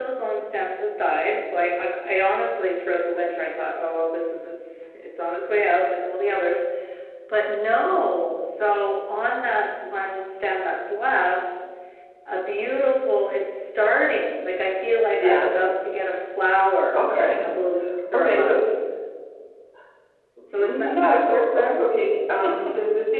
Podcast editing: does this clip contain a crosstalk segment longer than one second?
Yes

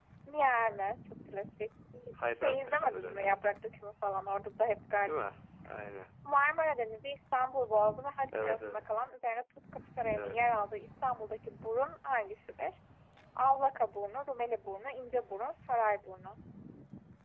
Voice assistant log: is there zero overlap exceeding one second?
No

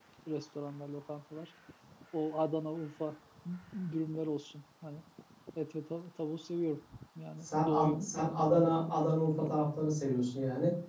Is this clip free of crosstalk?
No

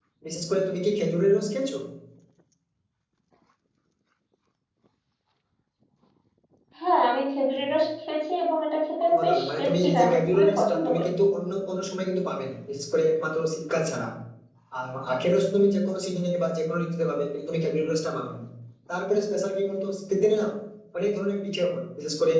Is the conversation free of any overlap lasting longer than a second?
No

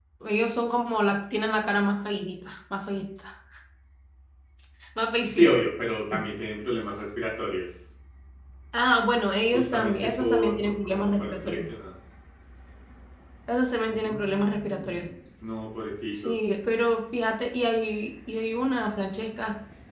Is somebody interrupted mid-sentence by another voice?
Yes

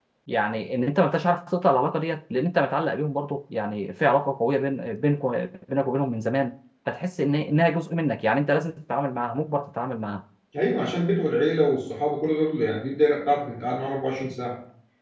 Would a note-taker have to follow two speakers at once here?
No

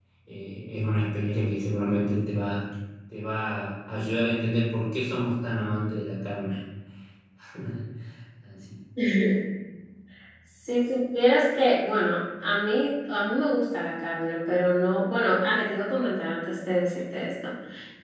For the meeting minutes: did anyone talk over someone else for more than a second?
No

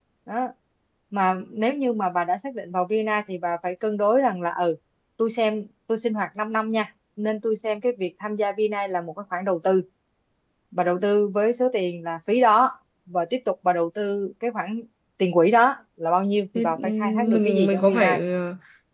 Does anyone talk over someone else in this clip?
Yes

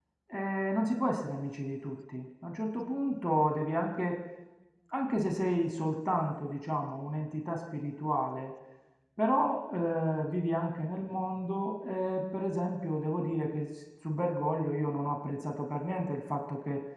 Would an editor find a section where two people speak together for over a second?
No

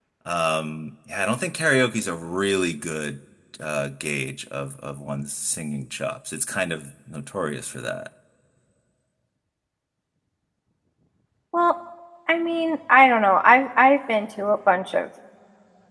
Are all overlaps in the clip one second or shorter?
Yes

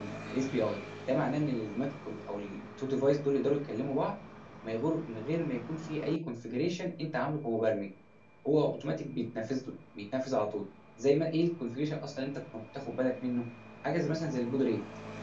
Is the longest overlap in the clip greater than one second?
No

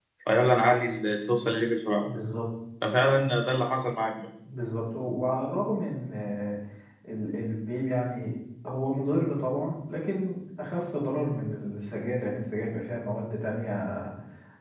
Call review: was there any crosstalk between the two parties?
No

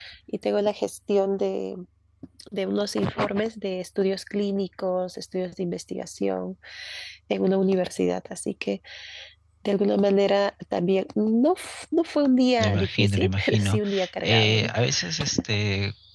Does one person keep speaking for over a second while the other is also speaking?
Yes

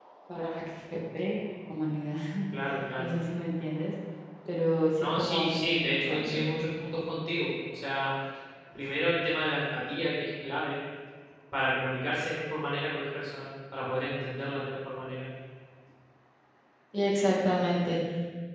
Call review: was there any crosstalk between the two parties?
Yes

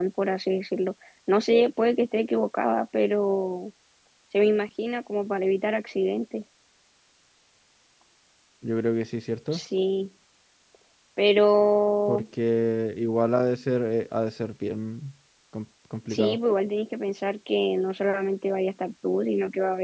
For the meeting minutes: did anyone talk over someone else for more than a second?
No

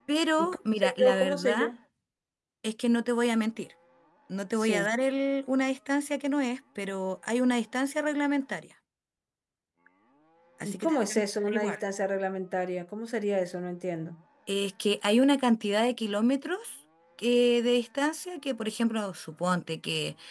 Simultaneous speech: Yes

